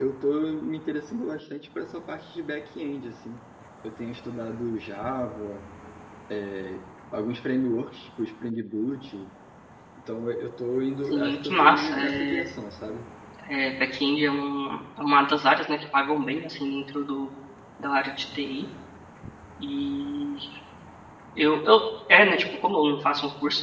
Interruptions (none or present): present